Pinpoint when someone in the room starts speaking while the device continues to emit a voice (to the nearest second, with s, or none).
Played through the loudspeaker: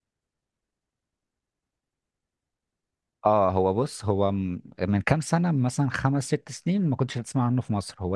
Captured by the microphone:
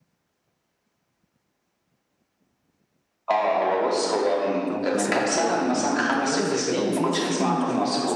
5 s